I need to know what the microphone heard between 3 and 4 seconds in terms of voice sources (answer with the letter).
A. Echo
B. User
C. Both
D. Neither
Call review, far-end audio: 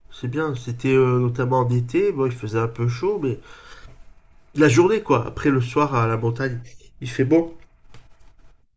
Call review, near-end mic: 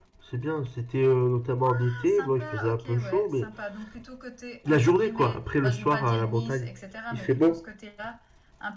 C